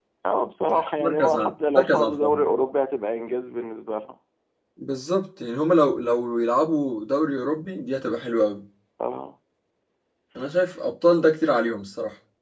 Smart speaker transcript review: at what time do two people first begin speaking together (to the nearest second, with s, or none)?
1 s